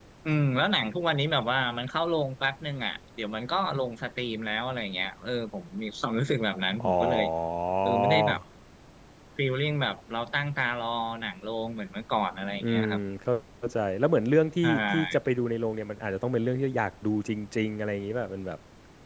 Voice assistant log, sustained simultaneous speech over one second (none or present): none